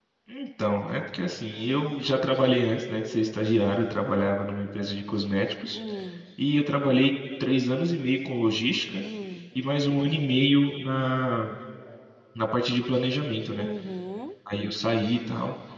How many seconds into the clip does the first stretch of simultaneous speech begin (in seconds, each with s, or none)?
none